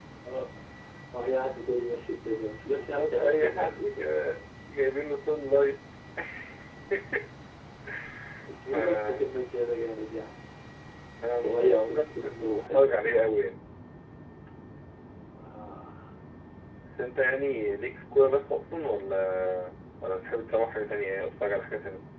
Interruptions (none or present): present